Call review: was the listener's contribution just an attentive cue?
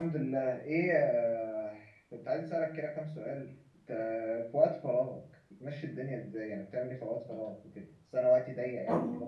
Yes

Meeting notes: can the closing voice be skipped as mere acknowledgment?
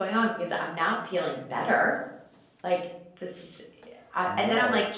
Yes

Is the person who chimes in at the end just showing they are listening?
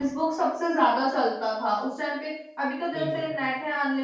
Yes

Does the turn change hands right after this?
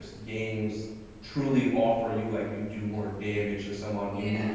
No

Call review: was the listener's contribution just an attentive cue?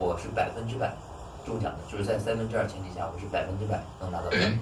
No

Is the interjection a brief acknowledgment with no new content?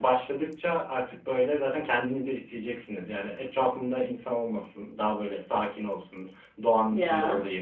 Yes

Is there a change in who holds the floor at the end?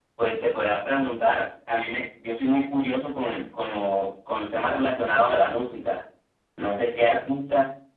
No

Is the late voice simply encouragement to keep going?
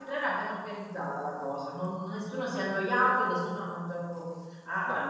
Yes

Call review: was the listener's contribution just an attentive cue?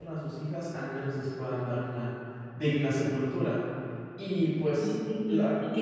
No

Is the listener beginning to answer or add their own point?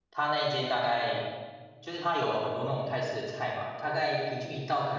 No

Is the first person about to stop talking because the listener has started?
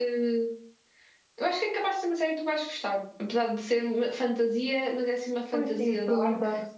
Yes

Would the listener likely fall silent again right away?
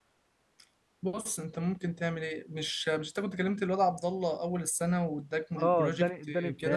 No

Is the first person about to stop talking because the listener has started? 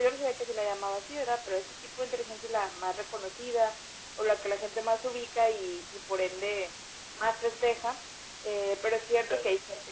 No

